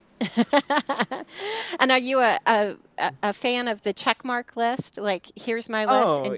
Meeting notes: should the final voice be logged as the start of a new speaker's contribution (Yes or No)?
Yes